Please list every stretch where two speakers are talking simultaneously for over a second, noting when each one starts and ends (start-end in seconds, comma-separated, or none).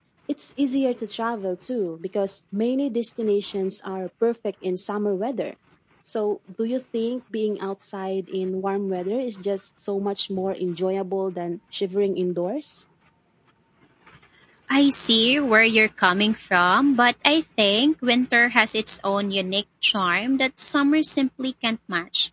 none